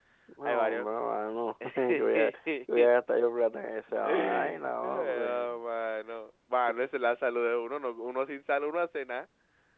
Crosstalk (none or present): present